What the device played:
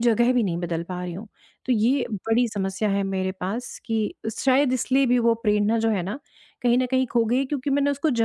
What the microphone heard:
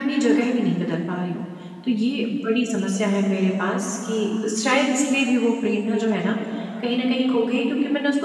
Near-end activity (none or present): none